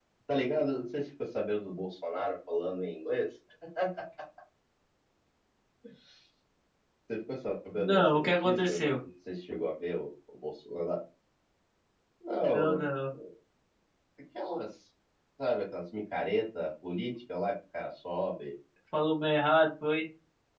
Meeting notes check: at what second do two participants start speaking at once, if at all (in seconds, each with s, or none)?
7.7 s